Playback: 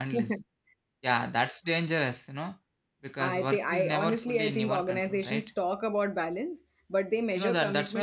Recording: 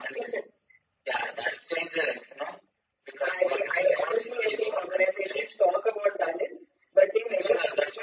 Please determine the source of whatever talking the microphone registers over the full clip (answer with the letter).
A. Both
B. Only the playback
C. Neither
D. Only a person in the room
B